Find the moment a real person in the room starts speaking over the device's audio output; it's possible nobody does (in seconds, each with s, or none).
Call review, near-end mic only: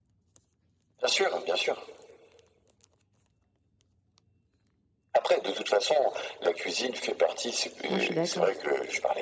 7.9 s